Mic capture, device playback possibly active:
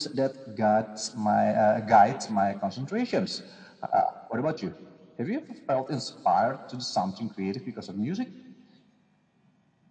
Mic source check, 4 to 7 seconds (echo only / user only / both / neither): echo only